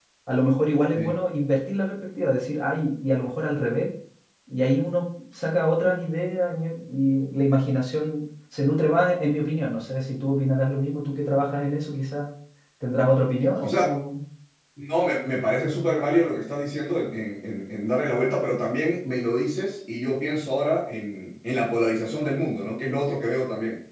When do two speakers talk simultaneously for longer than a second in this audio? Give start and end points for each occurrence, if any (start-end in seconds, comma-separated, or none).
none